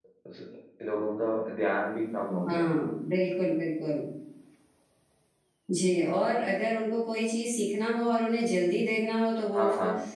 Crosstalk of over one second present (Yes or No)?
No